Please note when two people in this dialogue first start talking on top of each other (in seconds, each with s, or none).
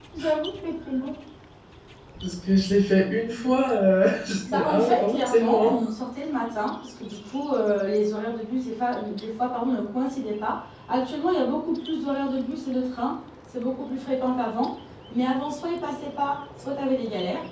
4.5 s